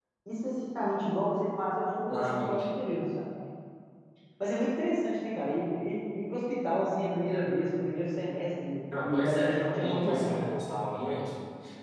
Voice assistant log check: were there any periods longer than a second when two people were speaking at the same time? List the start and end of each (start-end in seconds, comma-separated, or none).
9.0-10.5